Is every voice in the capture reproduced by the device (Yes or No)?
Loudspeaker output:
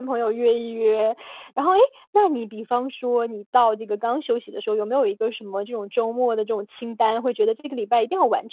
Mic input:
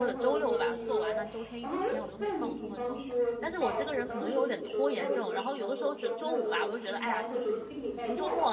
No